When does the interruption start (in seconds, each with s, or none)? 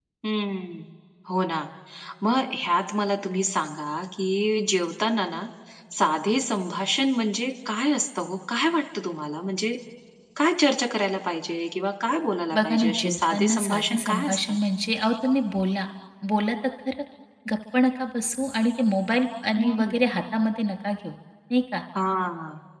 12.5 s